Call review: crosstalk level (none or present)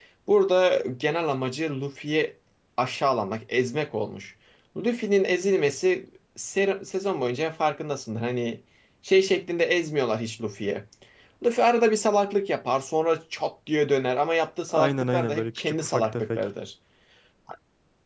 present